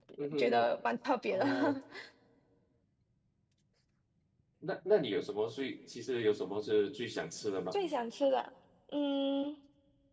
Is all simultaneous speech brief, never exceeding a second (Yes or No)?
Yes